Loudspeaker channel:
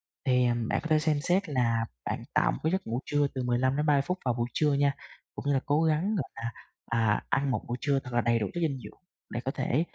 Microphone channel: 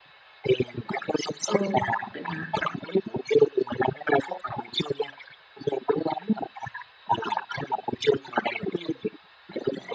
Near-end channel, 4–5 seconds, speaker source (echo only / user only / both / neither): echo only